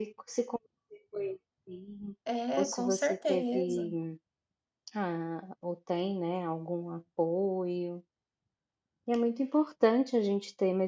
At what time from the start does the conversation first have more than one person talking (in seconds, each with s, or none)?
2.6 s